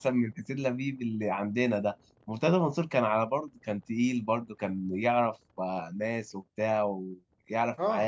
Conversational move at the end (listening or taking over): taking over